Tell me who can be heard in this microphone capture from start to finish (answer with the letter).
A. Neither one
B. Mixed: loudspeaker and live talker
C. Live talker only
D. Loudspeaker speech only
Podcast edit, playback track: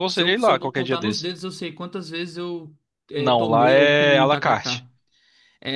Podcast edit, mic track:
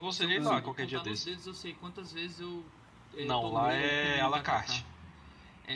B